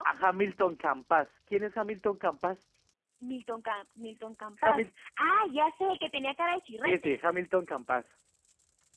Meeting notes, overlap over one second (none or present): none